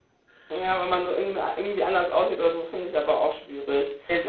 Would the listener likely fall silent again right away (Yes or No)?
Yes